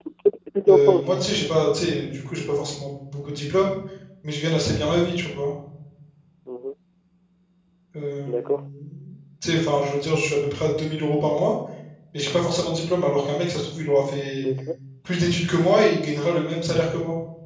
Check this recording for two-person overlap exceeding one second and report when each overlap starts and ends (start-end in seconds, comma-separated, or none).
none